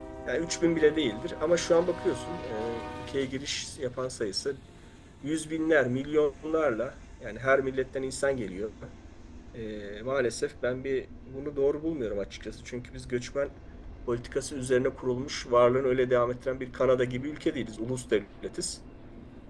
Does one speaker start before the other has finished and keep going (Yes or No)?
No